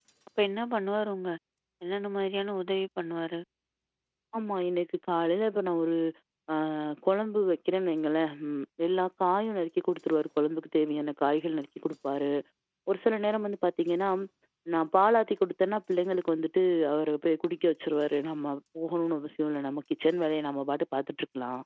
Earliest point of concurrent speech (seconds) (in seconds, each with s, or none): none